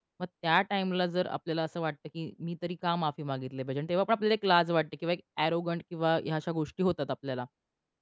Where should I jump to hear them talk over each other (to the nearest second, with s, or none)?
none